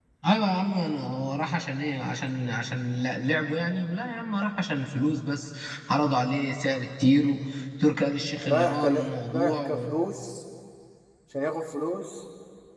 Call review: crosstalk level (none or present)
present